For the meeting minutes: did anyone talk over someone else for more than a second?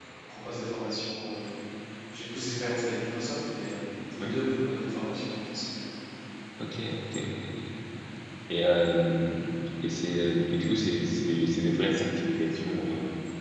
No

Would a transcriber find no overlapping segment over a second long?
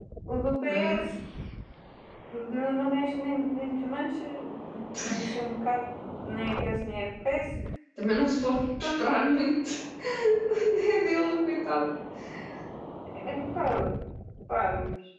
Yes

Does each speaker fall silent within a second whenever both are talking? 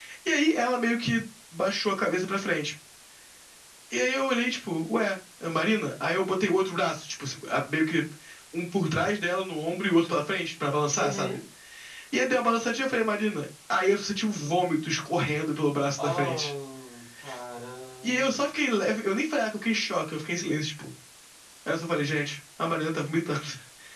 Yes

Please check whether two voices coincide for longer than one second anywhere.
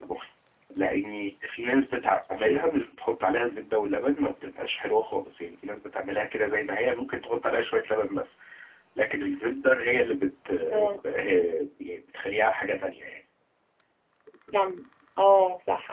No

